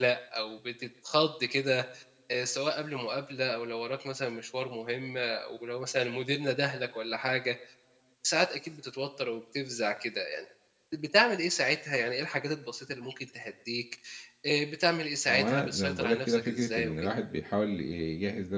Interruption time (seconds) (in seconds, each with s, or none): 15.3 s